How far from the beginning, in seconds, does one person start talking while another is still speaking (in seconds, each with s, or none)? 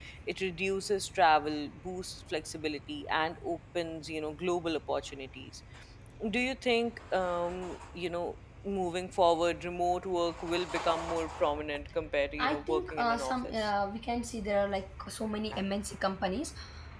12.4 s